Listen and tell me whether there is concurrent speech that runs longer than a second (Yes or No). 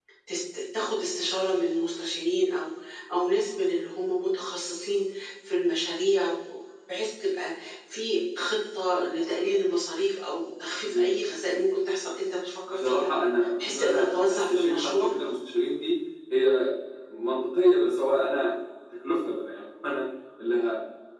Yes